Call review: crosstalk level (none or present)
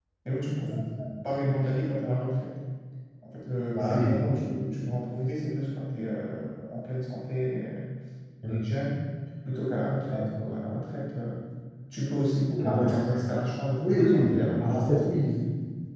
present